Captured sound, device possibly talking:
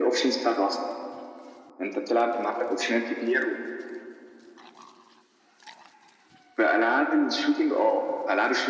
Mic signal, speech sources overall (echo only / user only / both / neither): echo only